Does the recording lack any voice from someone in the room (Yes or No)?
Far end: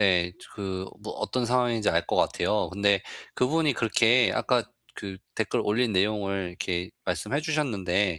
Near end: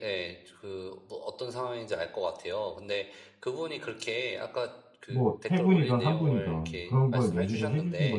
No